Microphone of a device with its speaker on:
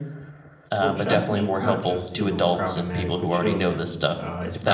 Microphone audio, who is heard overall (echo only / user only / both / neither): both